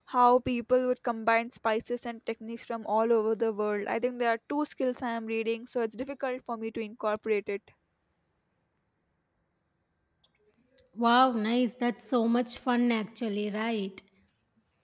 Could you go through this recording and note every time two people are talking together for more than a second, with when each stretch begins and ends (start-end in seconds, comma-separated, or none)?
none